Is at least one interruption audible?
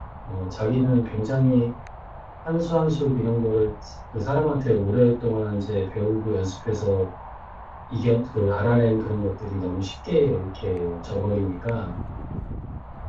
No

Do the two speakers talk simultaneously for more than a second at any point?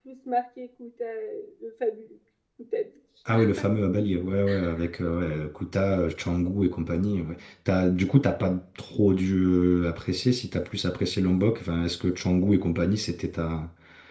No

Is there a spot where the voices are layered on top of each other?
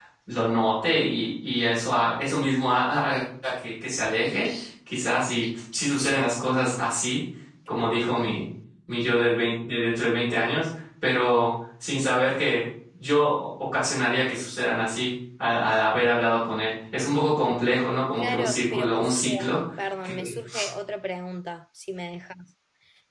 Yes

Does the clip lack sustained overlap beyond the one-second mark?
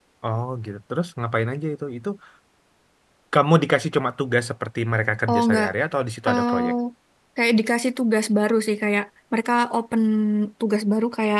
Yes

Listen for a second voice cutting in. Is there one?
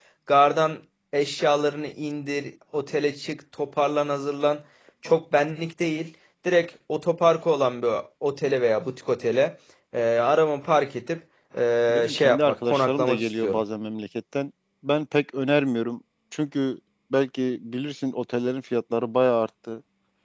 Yes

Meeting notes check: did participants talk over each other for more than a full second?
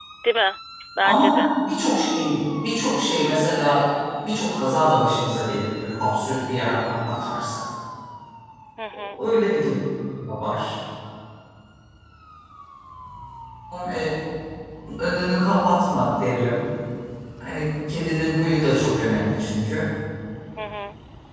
No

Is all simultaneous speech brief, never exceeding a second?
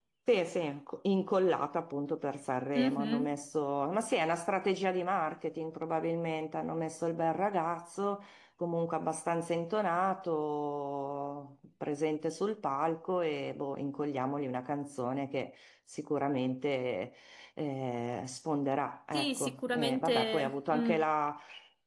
No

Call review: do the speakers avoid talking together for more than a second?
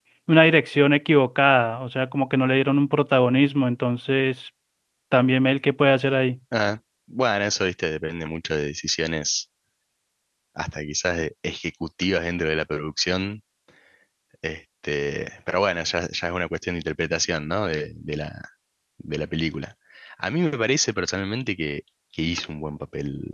Yes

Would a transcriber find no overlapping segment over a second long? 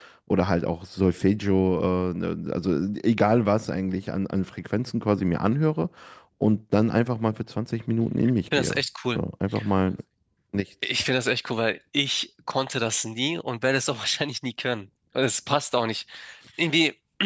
Yes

